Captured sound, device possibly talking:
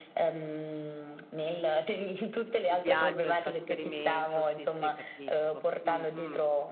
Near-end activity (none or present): present